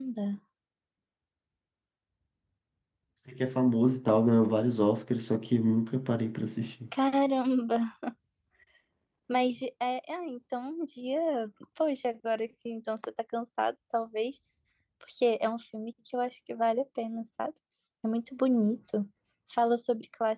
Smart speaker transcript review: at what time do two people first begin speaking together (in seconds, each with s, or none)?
none